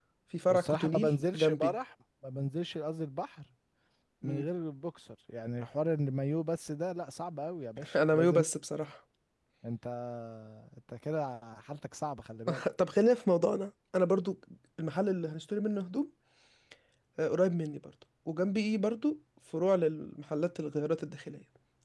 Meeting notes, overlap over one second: present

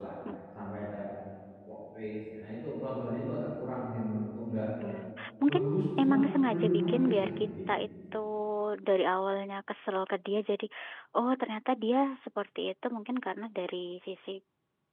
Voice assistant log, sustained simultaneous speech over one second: present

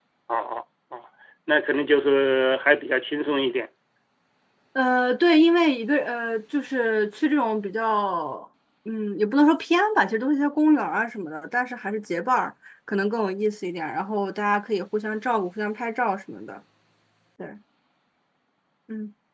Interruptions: none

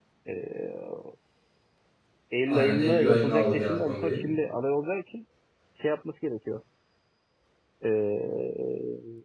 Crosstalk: present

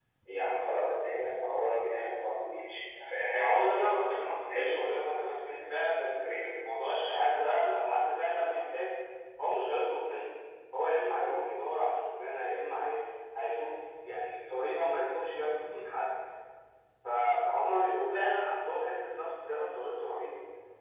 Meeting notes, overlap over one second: none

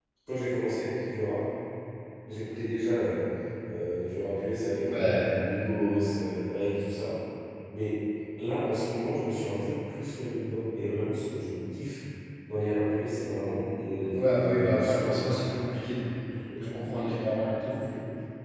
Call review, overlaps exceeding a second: present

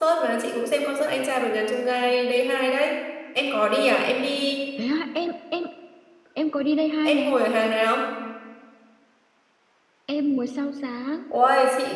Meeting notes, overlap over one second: none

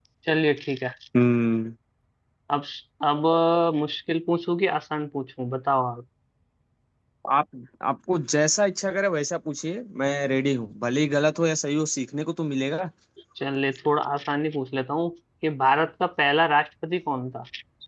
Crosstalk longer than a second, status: none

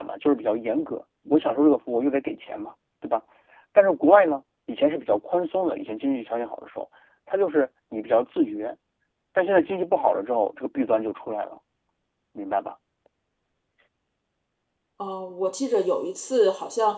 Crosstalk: none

